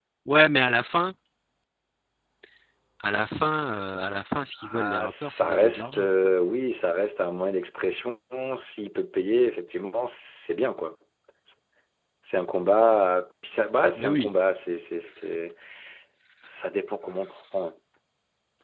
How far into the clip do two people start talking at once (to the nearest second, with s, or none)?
5 s